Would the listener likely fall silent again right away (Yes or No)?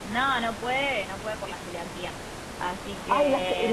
No